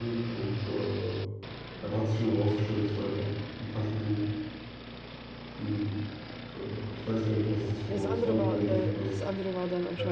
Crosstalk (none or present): present